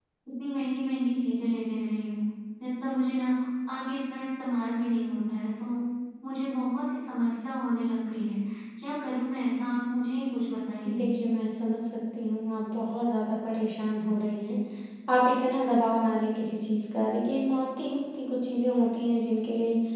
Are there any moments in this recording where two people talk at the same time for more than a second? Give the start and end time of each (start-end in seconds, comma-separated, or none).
none